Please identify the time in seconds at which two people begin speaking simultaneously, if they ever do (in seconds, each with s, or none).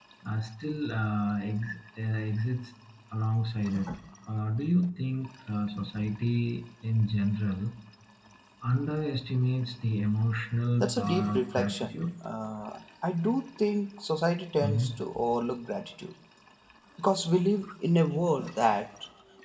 10.8 s